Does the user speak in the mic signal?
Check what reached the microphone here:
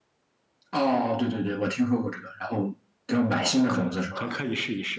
Yes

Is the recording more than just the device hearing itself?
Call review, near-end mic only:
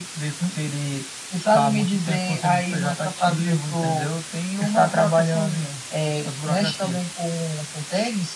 No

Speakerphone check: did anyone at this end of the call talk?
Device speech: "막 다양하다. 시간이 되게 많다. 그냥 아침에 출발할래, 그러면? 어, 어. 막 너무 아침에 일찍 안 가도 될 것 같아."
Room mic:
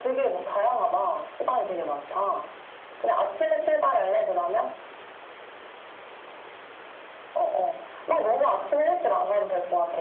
No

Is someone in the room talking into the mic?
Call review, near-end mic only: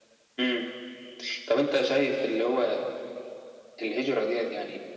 No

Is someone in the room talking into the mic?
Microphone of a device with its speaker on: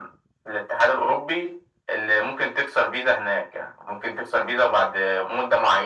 No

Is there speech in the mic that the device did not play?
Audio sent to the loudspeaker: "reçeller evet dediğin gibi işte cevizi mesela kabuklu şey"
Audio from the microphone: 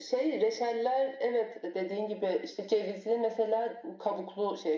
No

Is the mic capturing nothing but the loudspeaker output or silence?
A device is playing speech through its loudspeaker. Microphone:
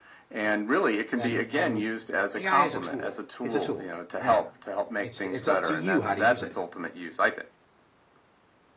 No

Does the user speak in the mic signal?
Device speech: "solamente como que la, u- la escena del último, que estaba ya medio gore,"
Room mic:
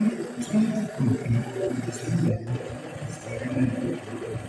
No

